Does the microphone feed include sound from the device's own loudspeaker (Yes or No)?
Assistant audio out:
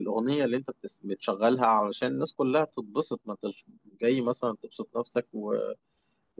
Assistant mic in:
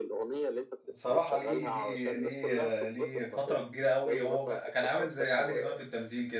Yes